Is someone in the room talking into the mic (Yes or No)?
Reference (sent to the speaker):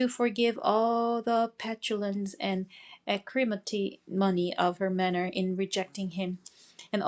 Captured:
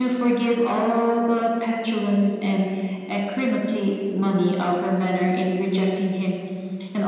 No